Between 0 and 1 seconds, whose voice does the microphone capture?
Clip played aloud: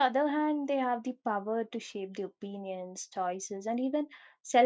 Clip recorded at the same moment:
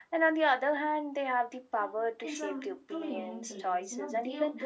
echo only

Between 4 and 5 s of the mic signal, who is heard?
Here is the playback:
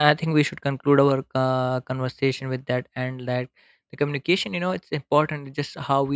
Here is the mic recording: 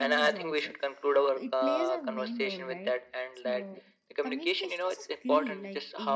both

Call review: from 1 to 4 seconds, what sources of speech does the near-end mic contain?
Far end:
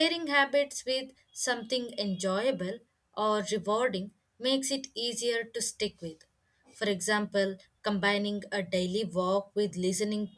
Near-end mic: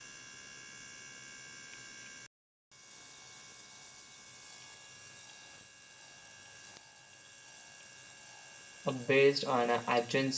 neither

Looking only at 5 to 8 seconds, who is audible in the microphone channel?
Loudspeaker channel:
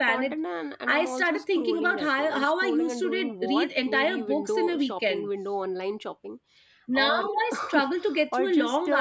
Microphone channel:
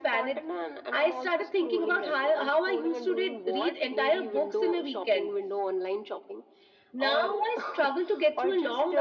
echo only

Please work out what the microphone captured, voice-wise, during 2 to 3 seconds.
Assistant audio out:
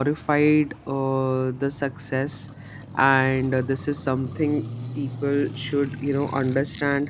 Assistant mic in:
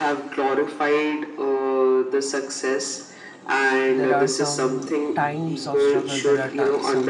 echo only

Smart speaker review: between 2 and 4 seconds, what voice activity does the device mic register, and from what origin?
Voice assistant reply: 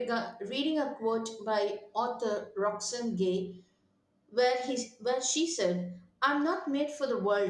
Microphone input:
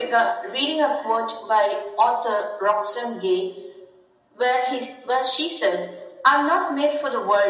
echo only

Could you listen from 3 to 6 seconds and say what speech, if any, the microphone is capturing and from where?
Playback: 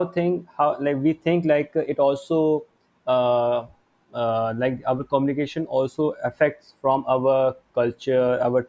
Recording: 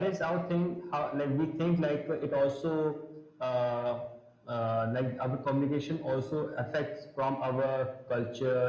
echo only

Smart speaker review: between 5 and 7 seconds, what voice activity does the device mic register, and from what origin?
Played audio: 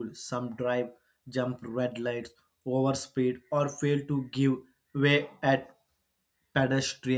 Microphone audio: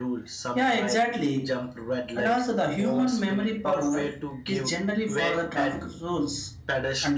both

